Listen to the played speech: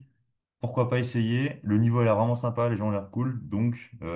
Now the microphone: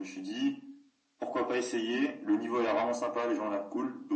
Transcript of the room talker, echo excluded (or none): none